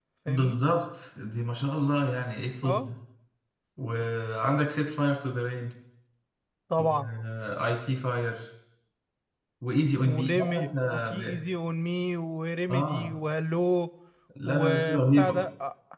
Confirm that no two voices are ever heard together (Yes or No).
No